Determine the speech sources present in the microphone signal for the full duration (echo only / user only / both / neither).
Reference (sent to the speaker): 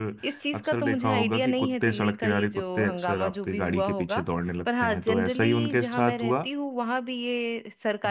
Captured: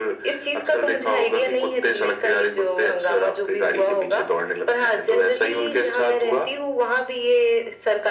echo only